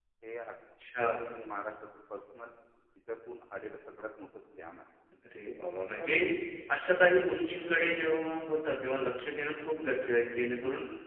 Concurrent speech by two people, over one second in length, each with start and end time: none

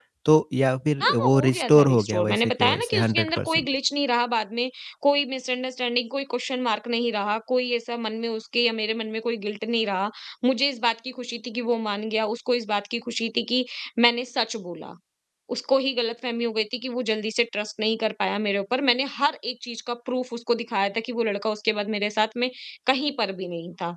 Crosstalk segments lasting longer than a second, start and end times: 1.0-3.7

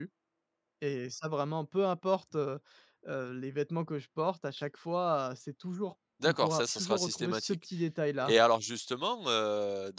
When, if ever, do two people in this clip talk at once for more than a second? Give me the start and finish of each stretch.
6.2-7.6

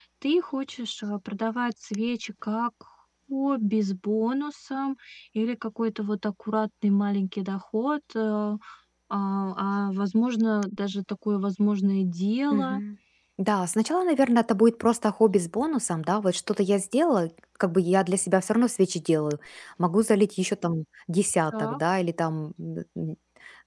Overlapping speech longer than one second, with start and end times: none

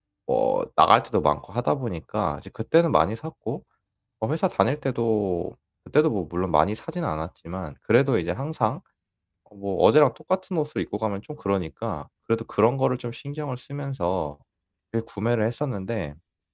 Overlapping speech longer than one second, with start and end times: none

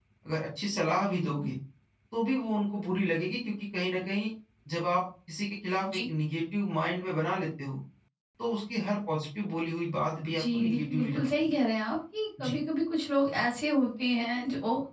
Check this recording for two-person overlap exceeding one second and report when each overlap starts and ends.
10.3-11.6

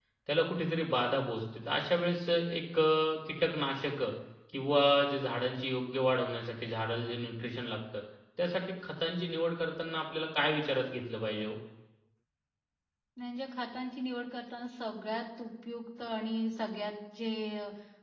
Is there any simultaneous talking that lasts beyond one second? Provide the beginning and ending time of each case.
none

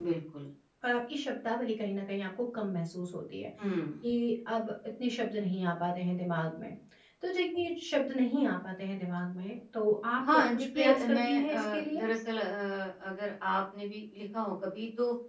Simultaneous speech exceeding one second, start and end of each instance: 10.3-12.0

